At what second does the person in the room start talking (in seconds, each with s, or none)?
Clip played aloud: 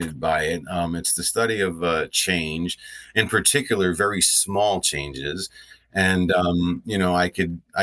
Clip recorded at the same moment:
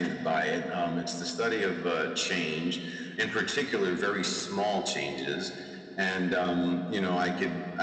none